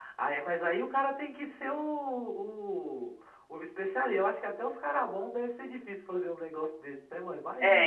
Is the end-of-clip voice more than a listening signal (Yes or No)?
Yes